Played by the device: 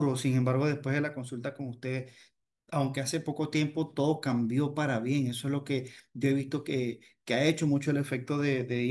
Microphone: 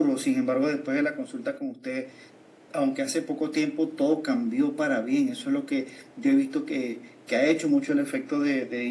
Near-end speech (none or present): none